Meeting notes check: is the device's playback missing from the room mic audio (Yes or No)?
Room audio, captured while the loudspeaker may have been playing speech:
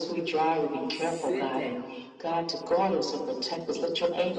No